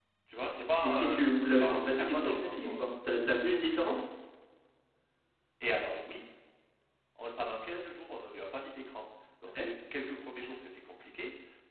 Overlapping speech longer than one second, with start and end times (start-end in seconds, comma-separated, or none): 0.8-2.7